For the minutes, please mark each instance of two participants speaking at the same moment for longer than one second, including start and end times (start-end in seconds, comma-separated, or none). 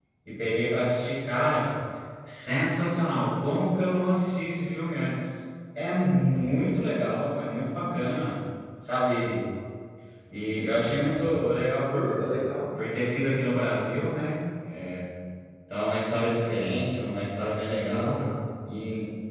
none